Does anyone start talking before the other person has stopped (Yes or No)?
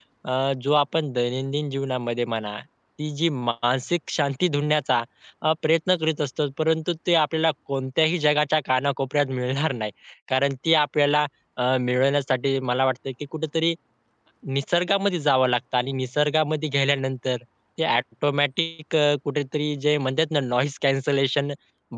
No